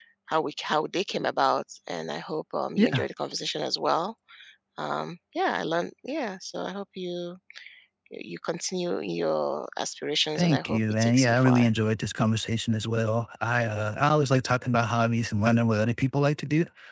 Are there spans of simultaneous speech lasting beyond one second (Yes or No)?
Yes